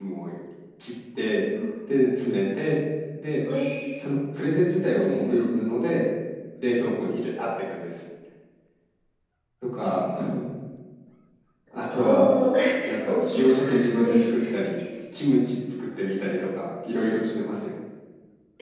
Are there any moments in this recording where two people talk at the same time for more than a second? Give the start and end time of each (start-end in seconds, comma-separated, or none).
13.1-14.4